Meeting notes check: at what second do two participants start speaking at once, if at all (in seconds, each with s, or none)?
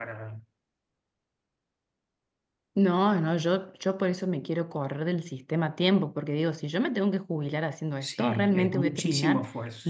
8.0 s